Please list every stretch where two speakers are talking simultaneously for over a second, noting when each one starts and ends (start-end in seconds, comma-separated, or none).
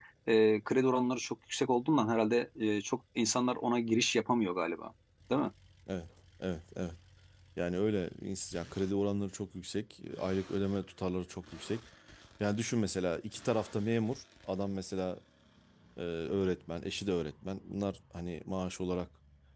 none